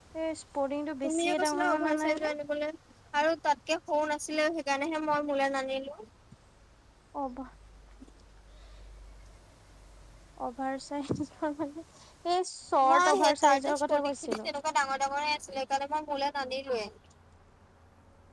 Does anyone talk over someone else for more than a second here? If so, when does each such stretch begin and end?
1.0-2.3, 12.9-14.5

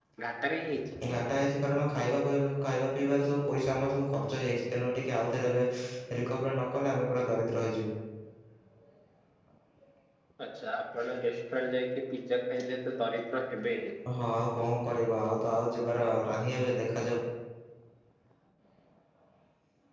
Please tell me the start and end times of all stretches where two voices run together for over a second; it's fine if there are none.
none

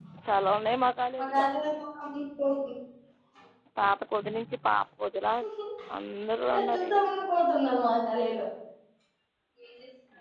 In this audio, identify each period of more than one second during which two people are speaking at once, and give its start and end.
none

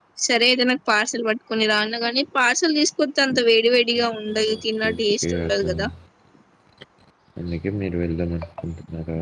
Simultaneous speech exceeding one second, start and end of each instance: 4.5-5.9

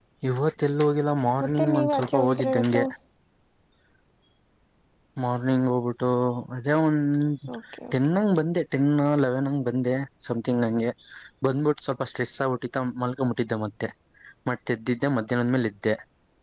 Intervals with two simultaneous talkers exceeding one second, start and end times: 1.4-2.8

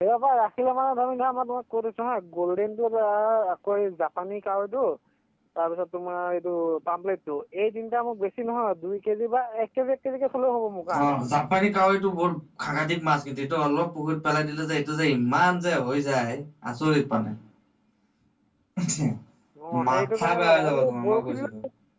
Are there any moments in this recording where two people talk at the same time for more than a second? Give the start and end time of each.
19.9-21.5

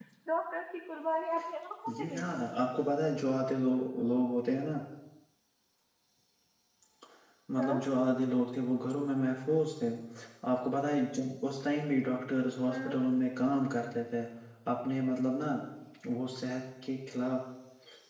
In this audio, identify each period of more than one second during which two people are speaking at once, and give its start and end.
none

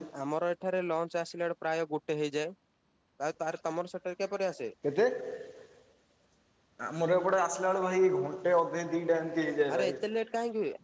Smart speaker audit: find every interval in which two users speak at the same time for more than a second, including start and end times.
none

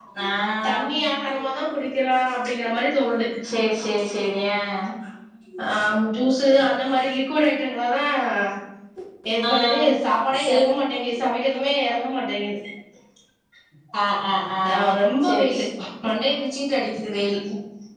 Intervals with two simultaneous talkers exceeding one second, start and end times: none

